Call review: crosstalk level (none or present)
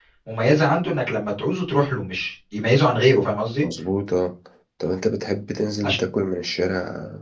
none